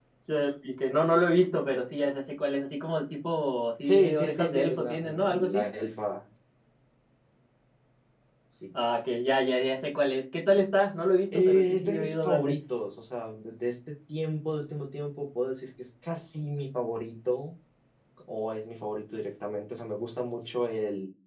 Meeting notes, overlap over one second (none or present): present